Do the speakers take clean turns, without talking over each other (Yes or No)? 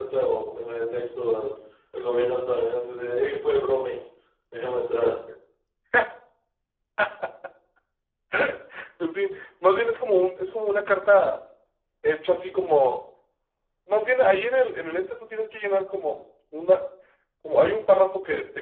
Yes